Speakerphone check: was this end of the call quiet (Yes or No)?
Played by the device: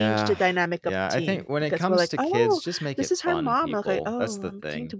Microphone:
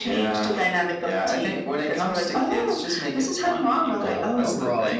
No